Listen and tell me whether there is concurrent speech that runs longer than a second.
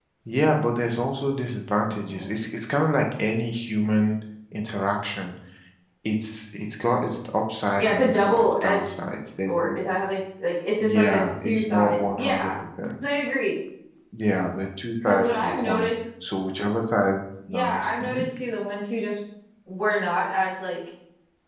Yes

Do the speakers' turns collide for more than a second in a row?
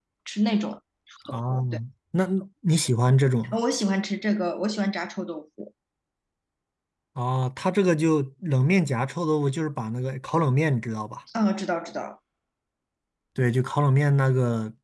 No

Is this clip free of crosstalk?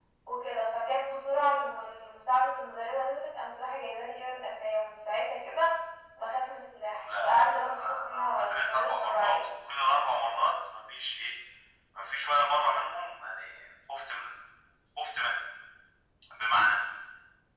No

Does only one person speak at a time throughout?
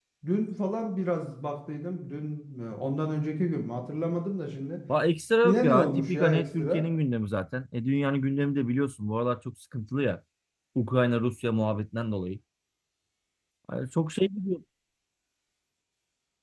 No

